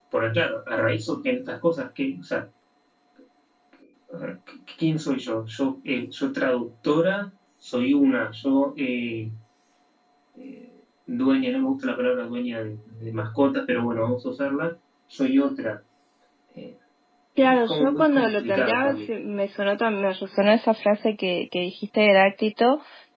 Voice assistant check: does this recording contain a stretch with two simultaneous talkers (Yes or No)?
Yes